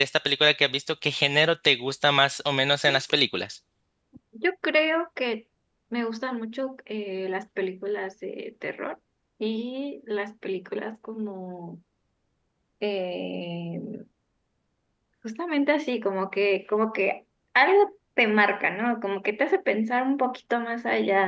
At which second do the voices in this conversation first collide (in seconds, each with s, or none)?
none